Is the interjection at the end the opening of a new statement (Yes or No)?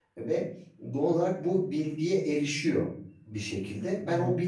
No